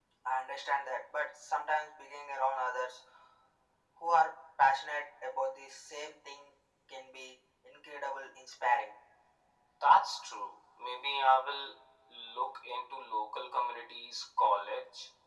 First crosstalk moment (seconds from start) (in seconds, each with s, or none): none